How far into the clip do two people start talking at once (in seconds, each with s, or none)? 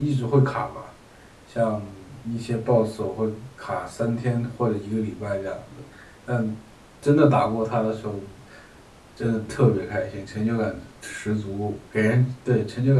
none